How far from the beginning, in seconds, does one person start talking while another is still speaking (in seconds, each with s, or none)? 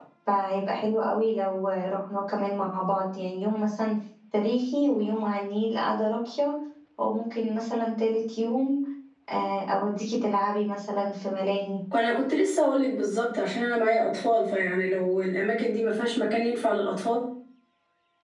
none